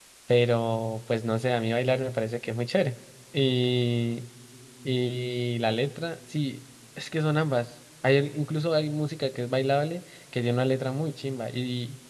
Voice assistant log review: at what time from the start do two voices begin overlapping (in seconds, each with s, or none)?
none